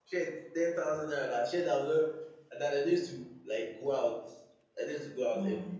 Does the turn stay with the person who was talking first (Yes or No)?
Yes